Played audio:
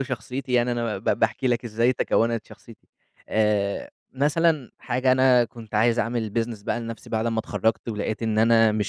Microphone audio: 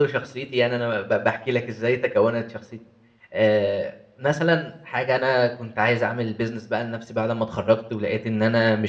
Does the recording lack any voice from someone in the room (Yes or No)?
Yes